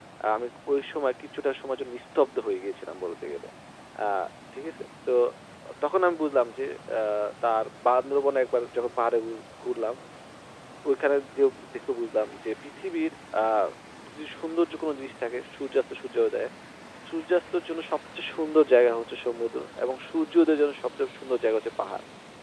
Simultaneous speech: No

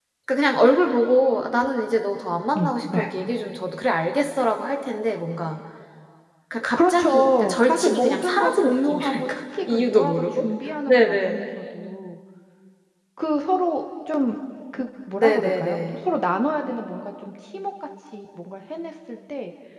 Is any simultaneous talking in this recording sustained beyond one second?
Yes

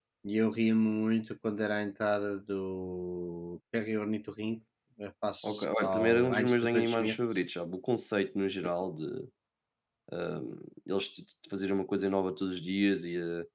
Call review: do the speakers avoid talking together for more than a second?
No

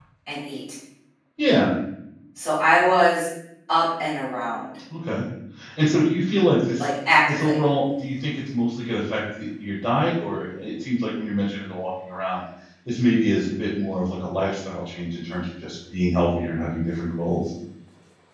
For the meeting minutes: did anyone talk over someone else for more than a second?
No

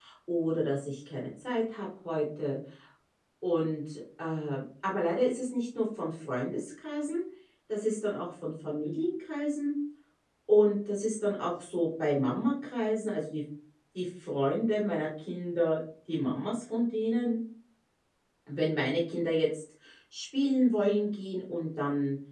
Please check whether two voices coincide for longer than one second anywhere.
No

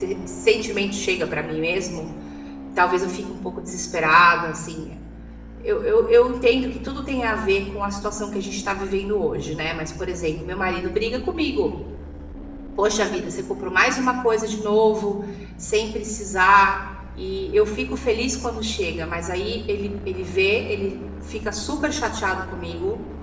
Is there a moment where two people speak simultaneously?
No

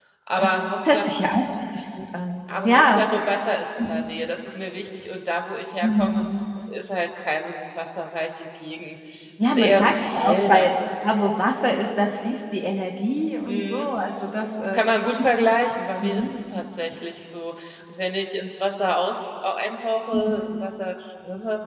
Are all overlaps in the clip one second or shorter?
No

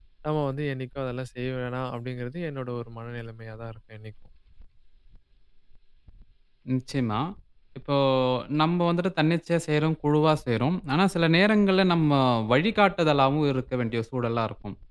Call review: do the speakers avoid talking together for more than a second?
Yes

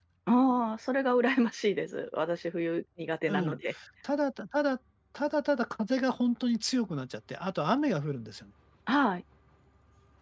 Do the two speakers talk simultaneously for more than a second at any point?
No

